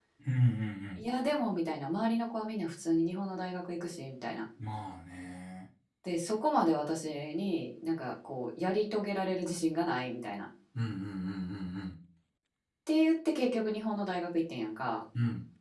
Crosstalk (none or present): none